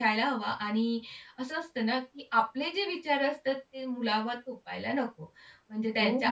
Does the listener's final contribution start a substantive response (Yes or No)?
No